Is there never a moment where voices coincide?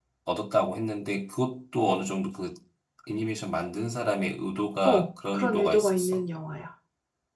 No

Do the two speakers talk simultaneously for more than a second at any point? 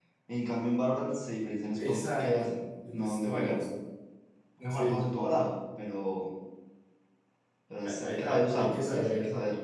Yes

